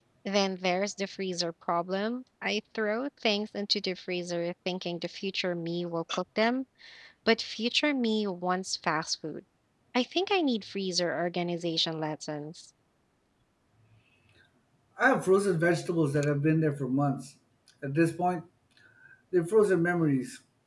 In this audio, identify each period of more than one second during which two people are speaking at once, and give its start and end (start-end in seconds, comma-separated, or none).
none